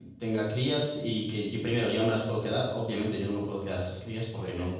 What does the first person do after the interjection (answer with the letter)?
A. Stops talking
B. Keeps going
B